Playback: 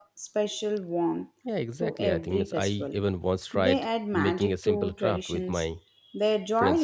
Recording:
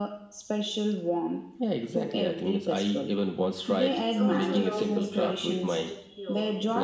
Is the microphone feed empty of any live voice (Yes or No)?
No